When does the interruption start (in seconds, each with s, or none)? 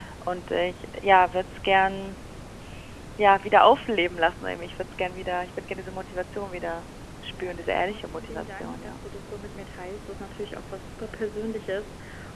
7.3 s